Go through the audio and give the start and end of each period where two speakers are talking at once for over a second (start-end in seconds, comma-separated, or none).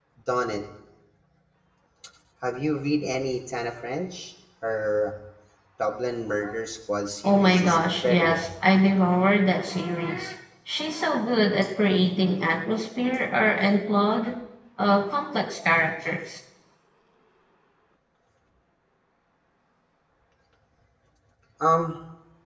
7.2-8.5